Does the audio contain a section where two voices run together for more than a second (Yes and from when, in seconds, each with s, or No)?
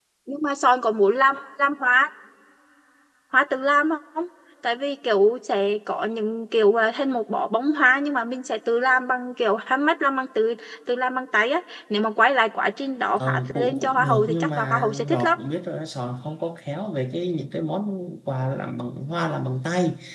Yes, from 13.2 s